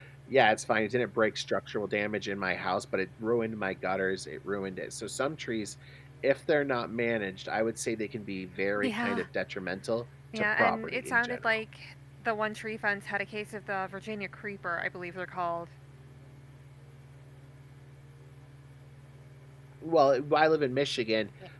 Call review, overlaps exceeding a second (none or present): present